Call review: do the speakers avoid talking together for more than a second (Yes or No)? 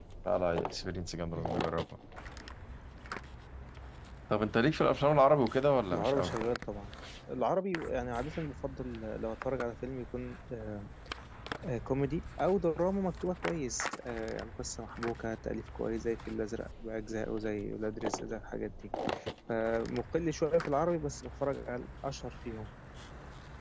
Yes